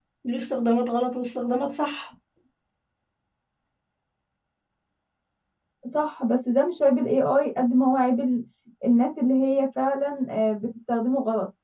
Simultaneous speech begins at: none

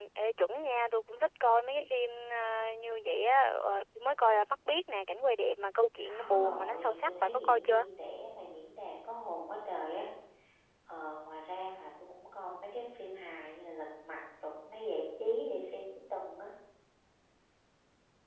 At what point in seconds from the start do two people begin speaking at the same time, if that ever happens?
6.0 s

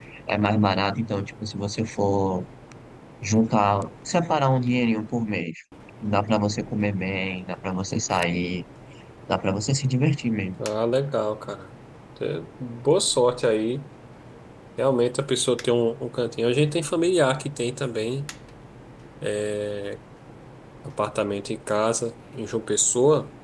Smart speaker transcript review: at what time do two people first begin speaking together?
none

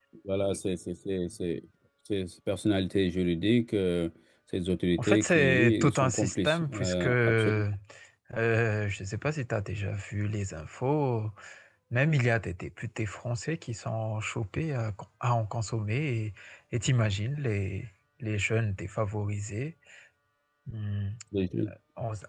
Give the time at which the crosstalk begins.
5.0 s

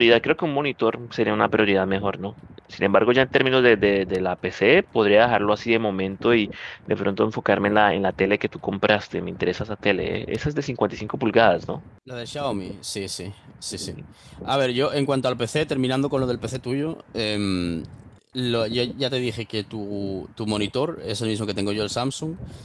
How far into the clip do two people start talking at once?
none

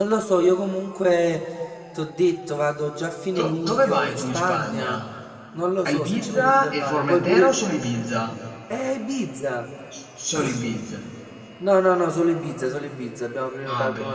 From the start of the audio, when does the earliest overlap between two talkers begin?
3.4 s

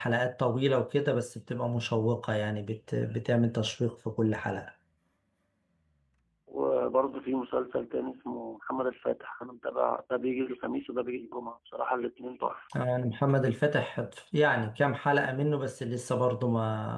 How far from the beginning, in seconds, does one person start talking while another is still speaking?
none

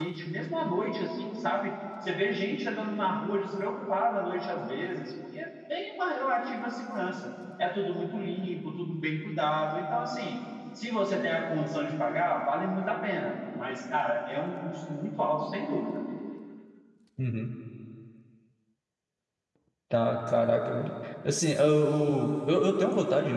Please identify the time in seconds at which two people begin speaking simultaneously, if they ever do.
none

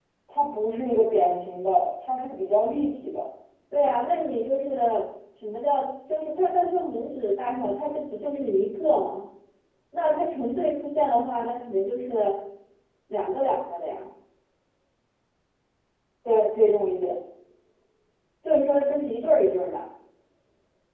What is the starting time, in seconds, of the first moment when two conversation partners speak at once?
none

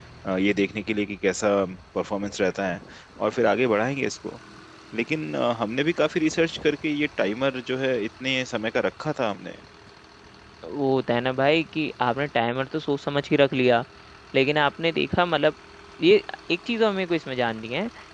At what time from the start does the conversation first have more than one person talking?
none

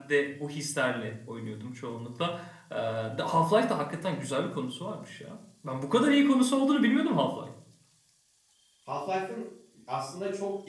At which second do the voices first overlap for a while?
none

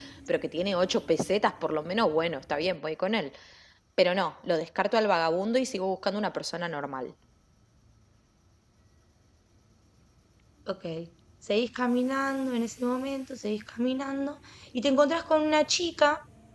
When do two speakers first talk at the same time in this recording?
none

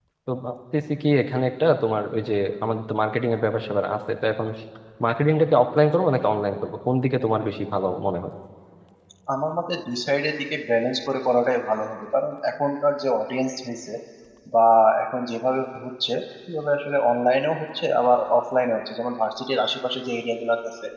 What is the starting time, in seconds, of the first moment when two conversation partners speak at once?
none

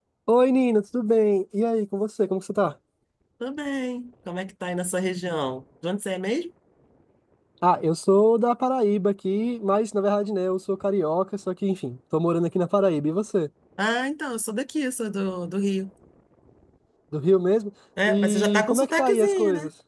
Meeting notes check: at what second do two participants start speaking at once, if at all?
18.0 s

